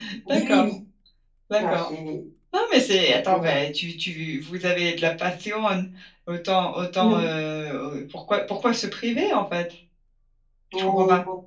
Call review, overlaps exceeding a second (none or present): none